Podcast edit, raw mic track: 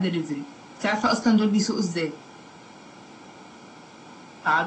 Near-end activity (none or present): none